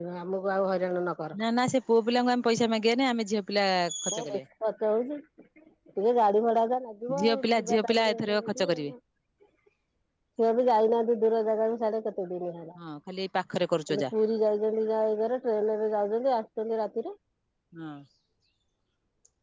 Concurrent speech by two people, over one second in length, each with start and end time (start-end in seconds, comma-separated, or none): 7.2-8.9